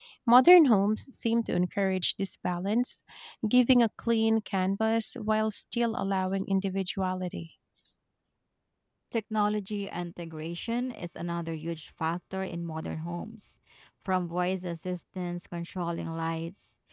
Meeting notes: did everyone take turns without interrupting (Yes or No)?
Yes